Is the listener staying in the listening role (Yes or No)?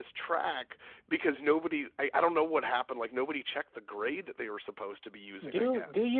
No